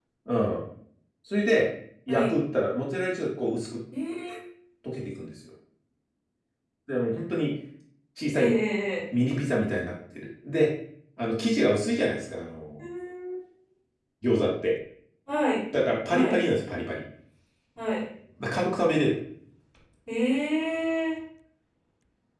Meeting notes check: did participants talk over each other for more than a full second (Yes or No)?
No